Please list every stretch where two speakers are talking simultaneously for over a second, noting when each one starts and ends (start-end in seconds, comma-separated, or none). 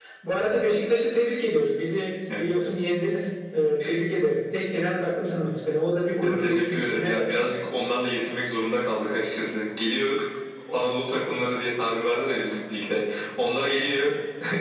6.2-7.5